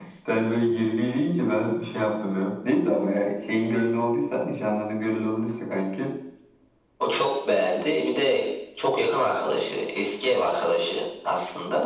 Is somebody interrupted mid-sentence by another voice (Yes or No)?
No